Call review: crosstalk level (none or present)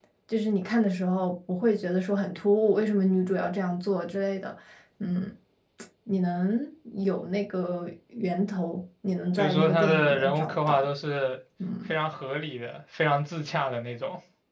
present